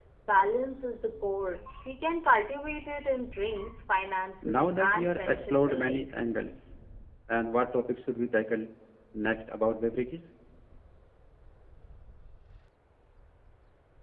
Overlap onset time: 4.4 s

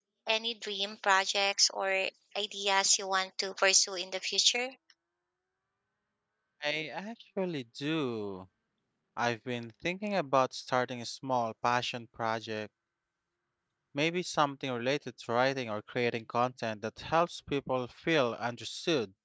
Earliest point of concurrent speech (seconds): none

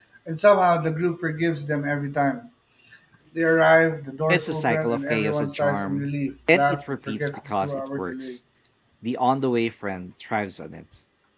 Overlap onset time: 4.3 s

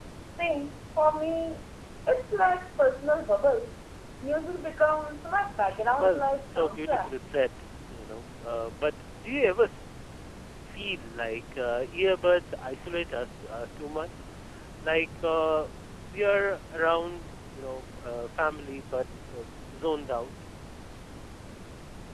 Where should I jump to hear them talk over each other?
6.0 s

